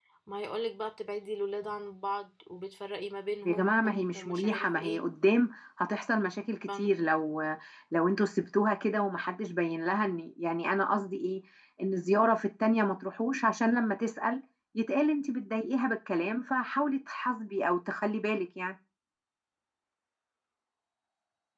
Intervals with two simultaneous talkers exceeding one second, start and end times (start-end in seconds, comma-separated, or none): 3.5-5.0